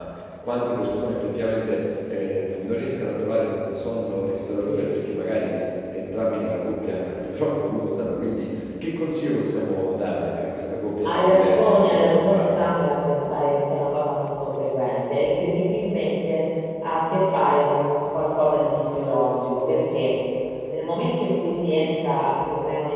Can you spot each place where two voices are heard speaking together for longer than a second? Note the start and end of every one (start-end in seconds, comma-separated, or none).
11.0-12.7